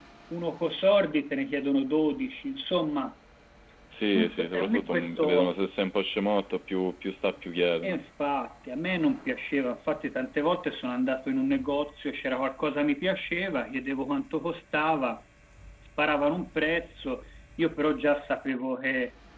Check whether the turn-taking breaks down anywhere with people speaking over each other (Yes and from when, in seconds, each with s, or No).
Yes, from 4.1 s